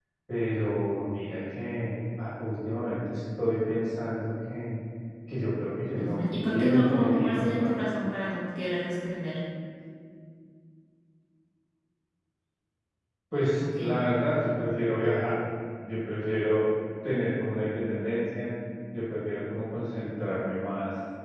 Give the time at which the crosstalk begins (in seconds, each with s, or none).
6.0 s